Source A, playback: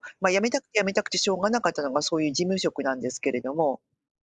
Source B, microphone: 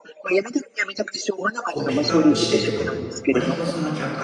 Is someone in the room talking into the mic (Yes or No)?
Yes